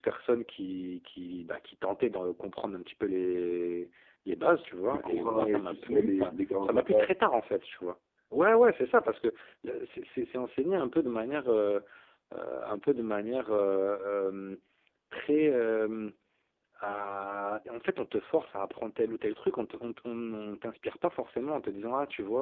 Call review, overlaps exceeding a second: present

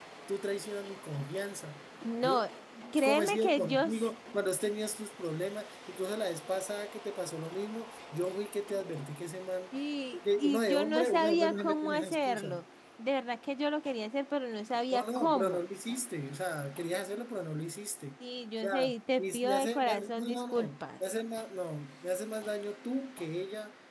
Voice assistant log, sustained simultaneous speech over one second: present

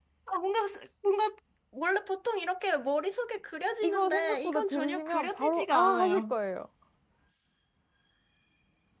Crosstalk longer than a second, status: present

